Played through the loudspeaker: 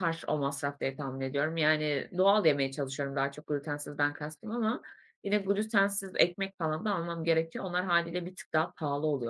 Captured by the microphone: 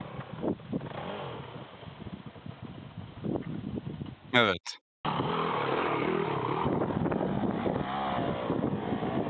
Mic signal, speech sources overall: user only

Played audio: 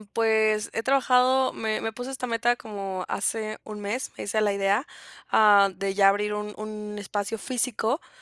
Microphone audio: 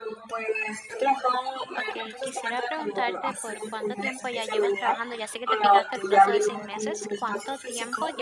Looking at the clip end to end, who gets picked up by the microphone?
both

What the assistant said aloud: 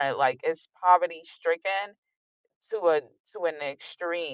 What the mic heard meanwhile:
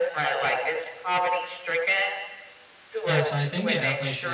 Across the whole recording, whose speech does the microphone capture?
both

